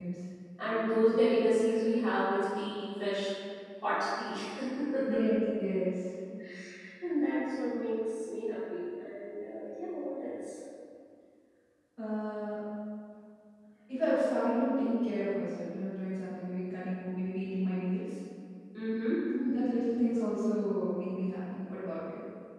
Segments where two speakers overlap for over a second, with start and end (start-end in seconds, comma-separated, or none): none